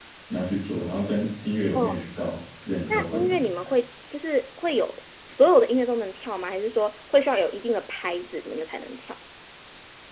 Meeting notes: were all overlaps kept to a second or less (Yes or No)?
Yes